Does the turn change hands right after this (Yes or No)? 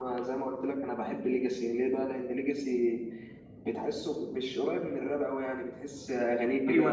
Yes